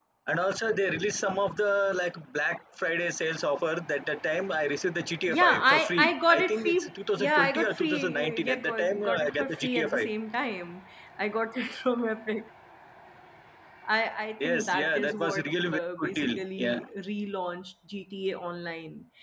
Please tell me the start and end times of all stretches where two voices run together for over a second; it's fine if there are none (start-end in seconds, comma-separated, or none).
5.3-10.1, 14.4-16.8